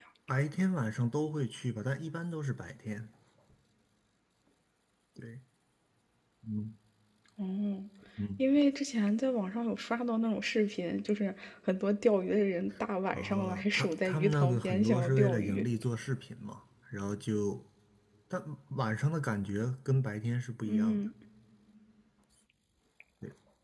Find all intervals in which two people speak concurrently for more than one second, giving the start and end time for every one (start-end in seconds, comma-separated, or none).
13.1-15.6